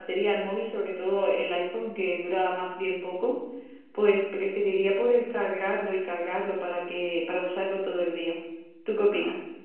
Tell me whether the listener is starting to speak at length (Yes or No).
Yes